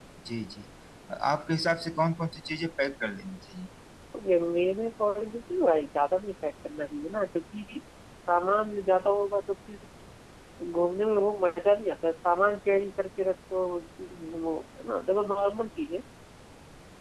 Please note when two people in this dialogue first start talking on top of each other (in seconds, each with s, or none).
none